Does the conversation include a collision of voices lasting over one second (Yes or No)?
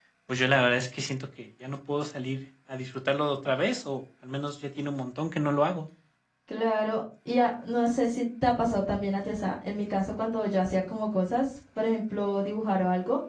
No